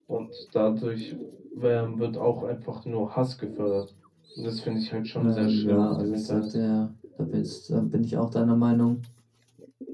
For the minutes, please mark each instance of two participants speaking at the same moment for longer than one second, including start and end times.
5.2-6.5

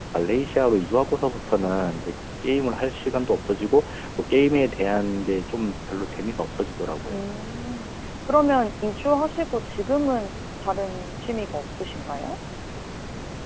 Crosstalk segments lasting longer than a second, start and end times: none

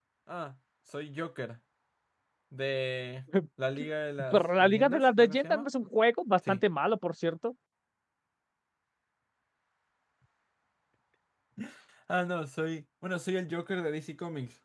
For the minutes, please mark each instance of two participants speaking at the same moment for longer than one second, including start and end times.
4.3-5.7

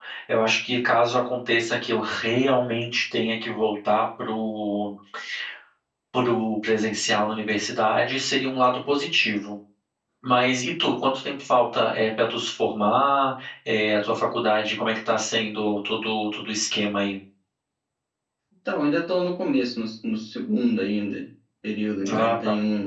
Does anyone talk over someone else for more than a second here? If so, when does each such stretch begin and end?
none

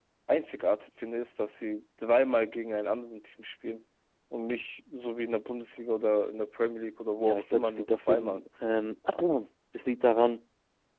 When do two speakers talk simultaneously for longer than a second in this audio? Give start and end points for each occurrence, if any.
7.2-8.4

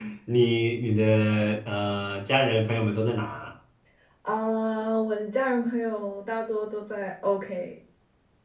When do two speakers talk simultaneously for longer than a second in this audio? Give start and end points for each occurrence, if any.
none

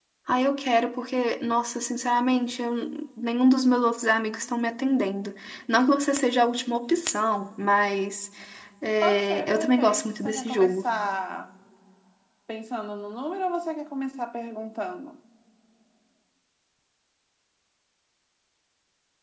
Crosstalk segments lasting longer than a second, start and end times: 9.0-10.9

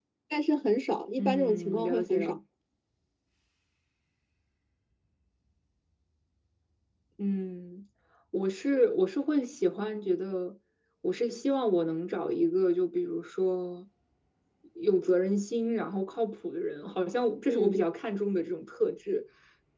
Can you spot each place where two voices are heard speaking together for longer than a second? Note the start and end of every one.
1.2-2.4

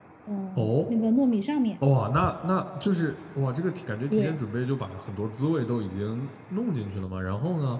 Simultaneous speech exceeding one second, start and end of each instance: none

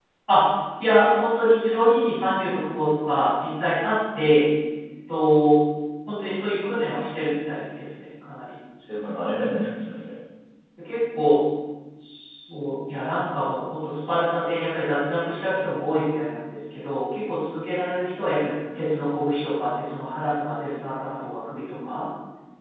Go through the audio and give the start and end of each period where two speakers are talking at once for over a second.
none

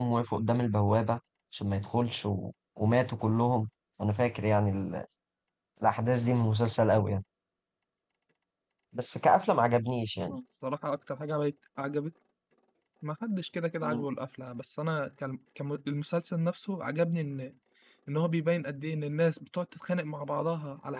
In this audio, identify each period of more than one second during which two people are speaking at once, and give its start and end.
none

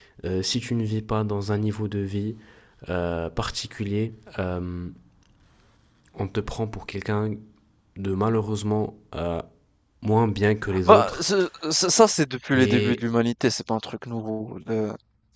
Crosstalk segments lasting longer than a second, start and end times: none

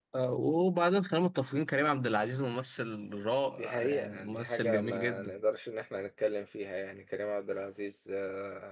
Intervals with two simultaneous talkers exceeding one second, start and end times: 3.6-5.3

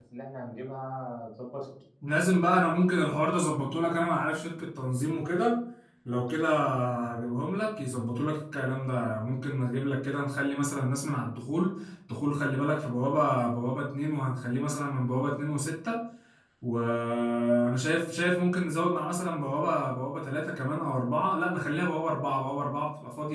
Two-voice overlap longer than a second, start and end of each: none

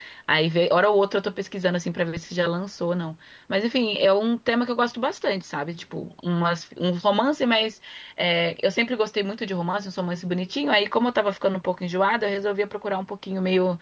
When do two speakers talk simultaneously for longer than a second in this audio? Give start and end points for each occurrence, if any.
none

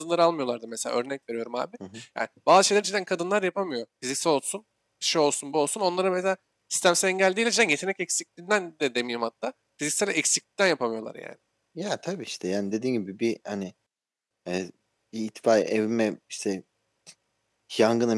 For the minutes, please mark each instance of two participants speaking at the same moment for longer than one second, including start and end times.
none

